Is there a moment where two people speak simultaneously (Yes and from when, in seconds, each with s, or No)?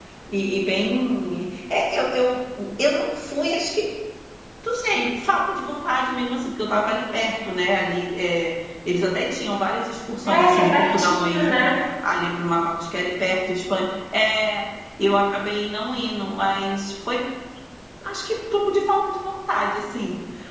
Yes, from 10.2 s